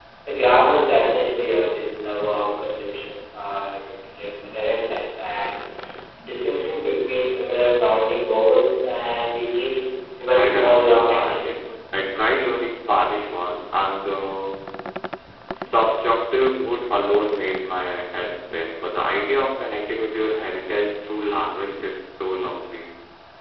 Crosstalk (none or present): present